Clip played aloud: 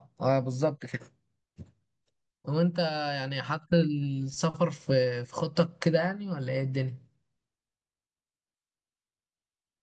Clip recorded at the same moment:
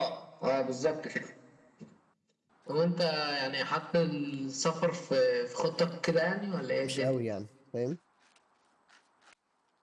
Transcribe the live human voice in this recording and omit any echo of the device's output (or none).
مش قوي يعني فاهم